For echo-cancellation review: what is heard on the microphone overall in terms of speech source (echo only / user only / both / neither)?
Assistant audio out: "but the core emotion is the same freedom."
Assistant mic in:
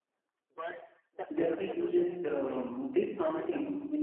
both